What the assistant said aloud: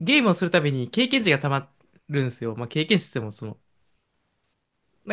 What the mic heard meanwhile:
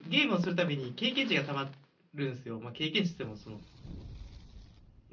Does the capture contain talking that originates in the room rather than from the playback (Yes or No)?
No